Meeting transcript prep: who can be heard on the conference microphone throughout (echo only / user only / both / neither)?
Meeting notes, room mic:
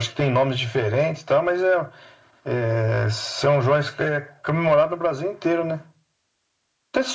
echo only